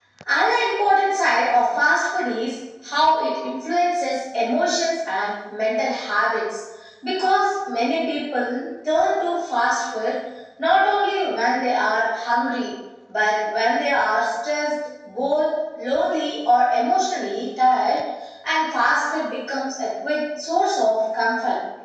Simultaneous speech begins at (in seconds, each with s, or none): none